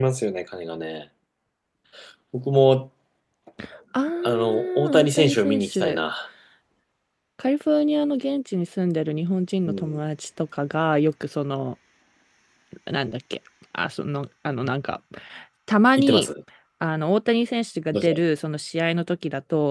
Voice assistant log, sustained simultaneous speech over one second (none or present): present